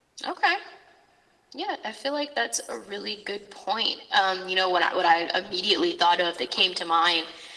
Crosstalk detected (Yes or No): No